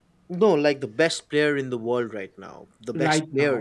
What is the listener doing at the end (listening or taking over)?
taking over